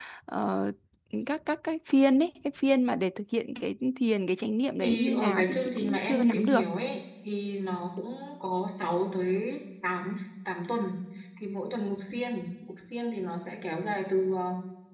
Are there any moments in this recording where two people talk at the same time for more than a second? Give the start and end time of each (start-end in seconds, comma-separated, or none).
4.8-6.6